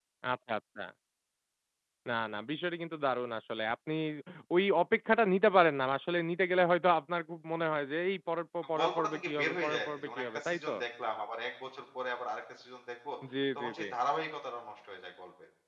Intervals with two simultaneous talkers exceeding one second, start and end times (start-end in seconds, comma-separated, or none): 8.6-10.7